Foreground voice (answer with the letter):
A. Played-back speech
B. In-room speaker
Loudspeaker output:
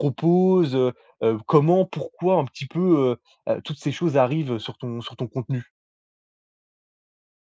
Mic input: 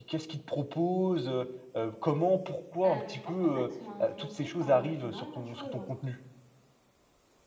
A